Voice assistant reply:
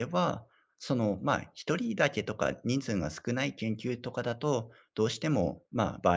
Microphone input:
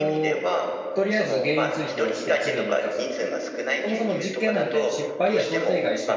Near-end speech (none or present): present